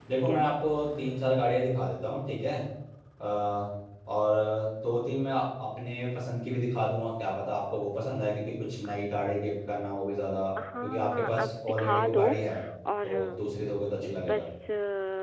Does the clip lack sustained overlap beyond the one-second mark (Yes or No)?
No